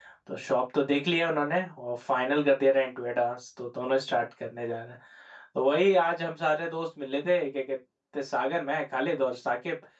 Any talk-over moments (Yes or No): No